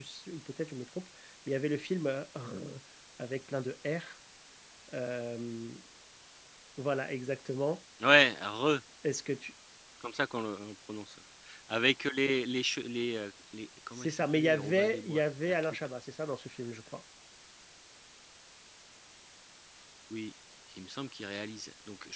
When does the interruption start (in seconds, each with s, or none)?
13.9 s